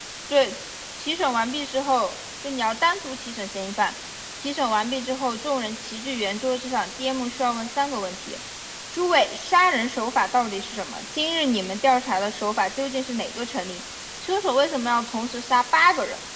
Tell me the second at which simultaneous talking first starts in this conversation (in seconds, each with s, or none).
none